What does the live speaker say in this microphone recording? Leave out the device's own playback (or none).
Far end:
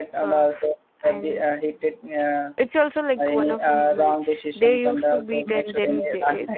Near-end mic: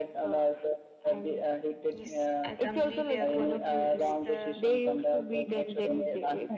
yes i completely agree with you it's the